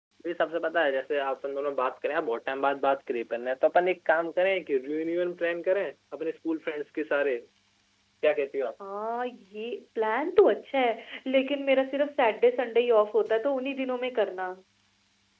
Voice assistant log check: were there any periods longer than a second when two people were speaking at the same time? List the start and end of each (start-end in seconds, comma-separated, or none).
none